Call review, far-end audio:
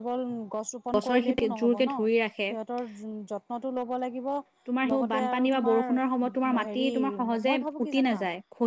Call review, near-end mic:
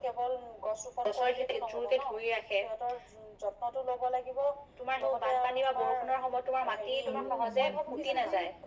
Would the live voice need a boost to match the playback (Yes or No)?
Yes